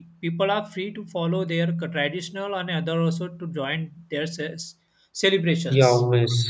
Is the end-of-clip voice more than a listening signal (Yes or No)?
Yes